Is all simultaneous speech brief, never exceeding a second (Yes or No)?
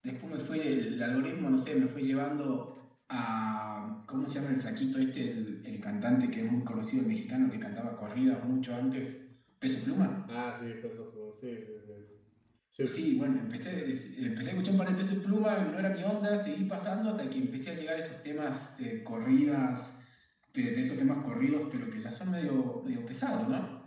Yes